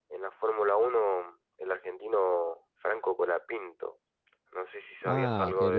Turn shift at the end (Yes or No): Yes